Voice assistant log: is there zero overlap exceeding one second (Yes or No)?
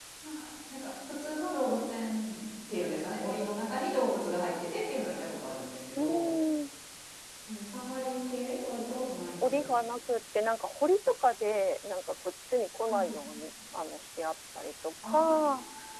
Yes